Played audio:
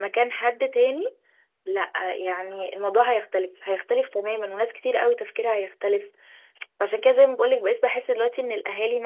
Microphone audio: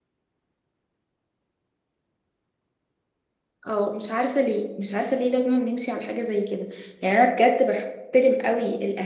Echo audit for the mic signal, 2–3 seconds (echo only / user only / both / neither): neither